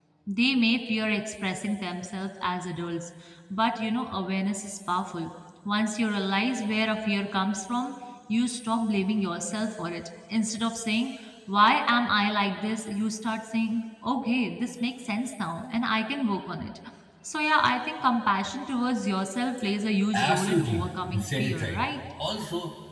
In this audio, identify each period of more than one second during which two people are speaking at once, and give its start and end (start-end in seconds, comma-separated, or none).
20.1-21.8